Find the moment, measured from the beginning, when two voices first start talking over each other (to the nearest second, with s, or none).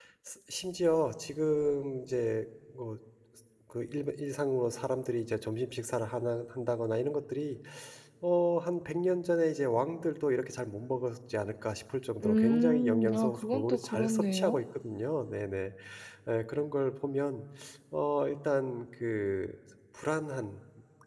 12 s